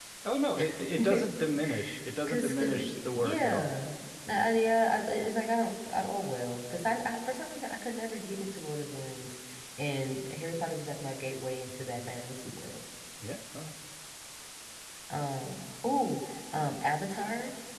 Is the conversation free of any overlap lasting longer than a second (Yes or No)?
No